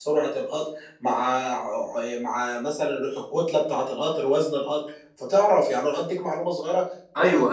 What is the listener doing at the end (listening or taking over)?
taking over